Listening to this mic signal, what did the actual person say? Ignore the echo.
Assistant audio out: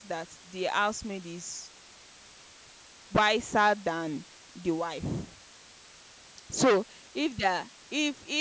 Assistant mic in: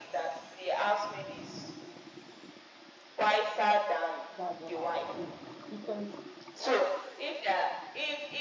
That's what I would do. Because

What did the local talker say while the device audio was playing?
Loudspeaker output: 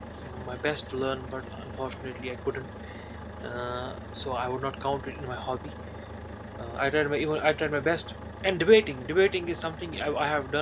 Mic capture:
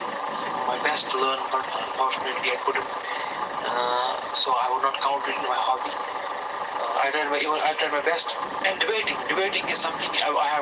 none

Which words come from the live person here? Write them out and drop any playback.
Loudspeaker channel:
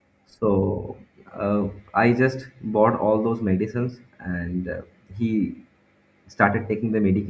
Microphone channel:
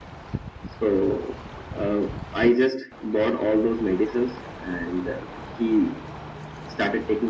none

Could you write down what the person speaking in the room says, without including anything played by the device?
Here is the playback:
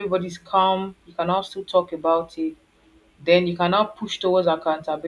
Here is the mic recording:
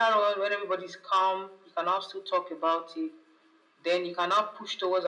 none

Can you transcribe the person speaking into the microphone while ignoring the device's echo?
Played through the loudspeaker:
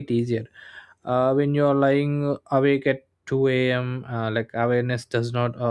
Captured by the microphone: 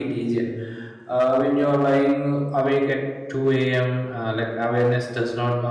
none

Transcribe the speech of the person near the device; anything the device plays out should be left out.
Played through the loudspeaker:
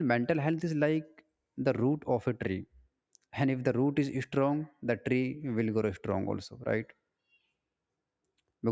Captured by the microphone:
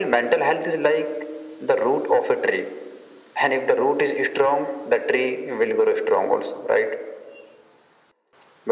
none

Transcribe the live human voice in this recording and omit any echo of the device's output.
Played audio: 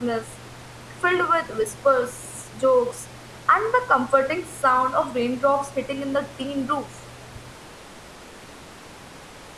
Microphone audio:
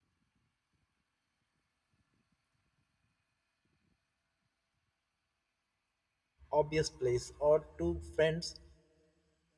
obvious place, or two friends

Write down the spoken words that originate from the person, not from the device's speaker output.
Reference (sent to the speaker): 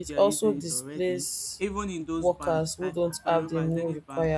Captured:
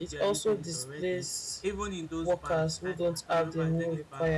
none

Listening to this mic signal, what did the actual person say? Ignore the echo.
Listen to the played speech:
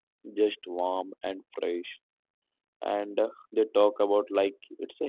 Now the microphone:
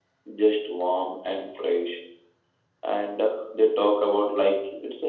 none

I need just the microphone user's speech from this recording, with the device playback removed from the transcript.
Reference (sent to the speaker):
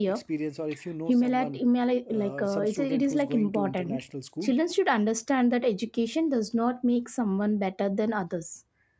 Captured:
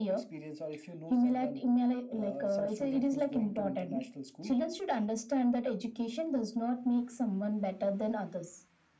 none

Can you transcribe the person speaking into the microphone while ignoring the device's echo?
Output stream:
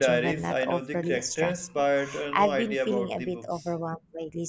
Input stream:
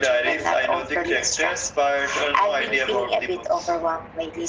none

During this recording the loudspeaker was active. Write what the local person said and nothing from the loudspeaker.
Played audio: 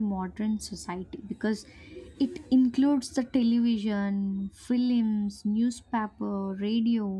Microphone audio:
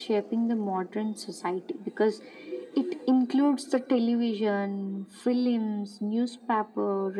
none

